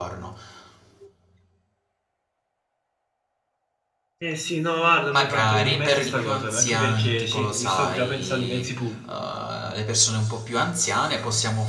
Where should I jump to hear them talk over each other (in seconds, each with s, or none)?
5.1 s